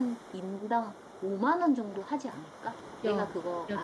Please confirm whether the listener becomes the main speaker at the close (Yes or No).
Yes